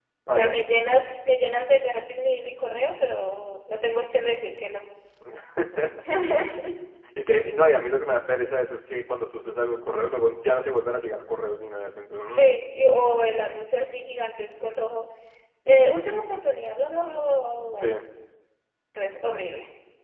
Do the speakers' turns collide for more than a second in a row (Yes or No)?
No